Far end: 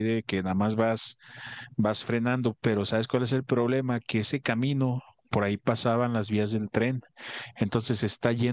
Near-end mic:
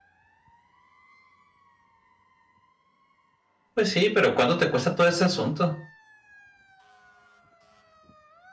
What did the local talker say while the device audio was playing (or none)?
Pues sí, pero ¿cuánto te cuesta todo ese asunto?